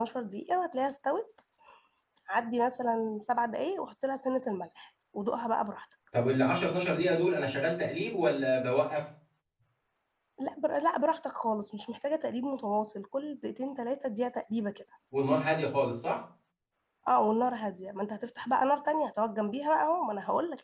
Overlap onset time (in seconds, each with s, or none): none